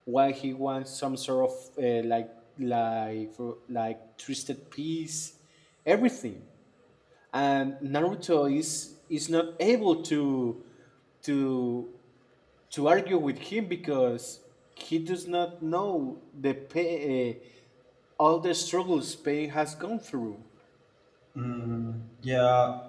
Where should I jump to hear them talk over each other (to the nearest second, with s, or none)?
none